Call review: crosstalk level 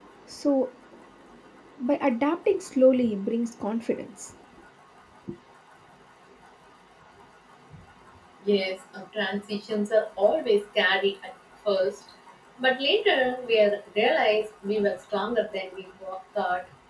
none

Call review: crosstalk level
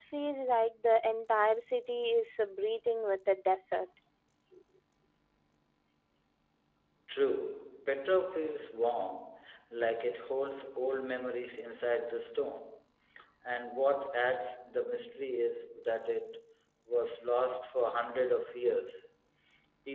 none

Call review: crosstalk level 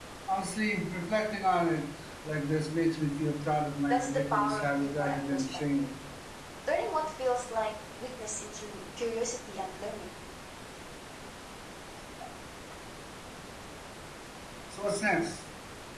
present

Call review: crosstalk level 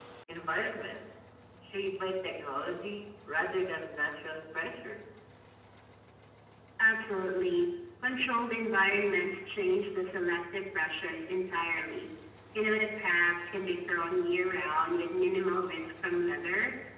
none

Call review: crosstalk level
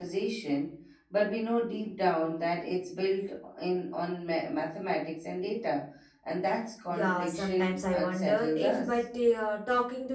present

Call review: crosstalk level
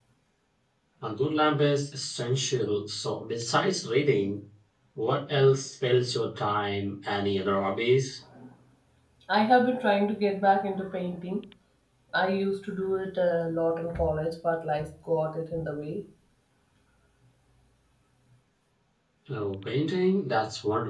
none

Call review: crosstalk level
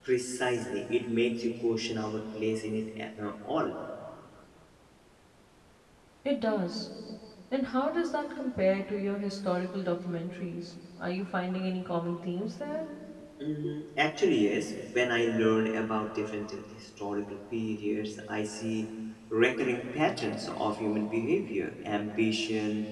none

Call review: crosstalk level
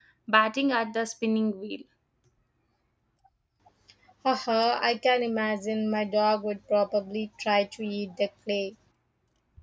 none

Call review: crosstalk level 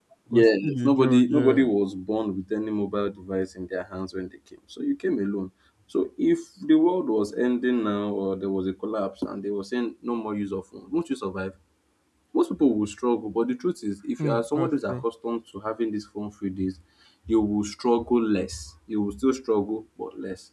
present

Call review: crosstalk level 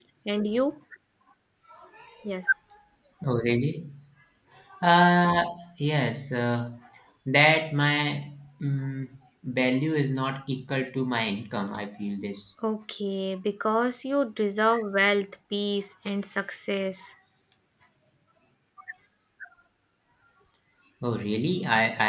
none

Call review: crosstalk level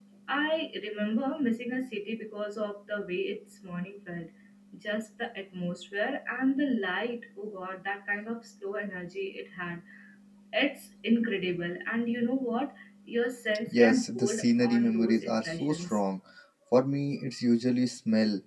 present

